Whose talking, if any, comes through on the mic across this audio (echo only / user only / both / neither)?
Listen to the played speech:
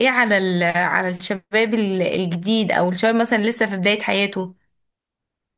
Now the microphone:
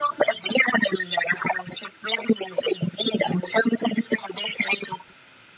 echo only